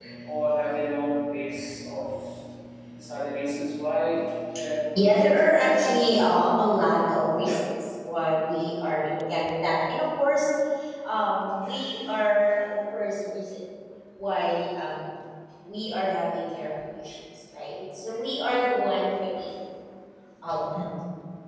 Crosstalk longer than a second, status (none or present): present